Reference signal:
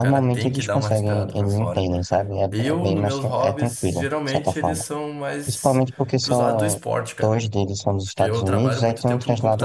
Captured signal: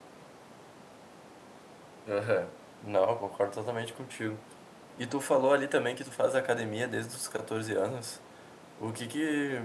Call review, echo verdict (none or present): none